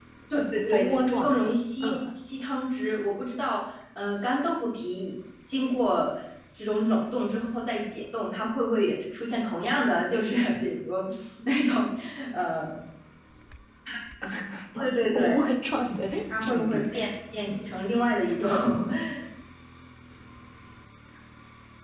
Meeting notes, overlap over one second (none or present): present